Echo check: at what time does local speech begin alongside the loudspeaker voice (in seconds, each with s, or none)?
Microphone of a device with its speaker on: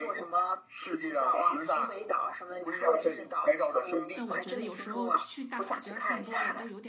4.1 s